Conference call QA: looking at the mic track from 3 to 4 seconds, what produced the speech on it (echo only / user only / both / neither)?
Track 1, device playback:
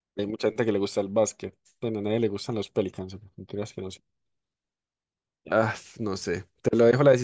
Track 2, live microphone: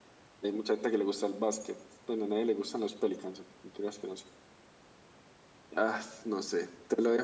echo only